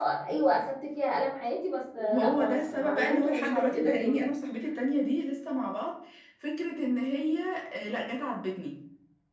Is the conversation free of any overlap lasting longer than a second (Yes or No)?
No